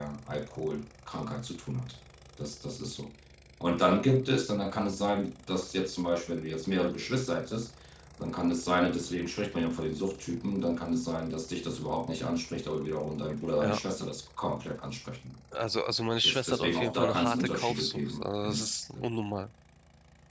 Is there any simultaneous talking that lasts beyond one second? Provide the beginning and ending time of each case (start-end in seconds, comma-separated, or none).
16.2-18.7